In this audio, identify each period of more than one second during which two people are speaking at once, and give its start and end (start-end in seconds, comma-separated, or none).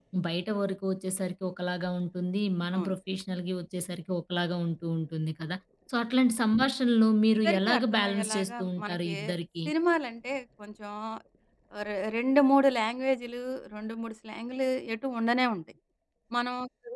7.5-9.1